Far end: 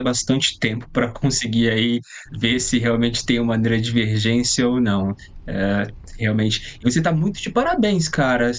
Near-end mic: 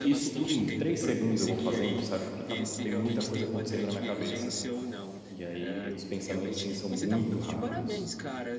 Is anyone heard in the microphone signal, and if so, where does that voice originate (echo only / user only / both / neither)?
both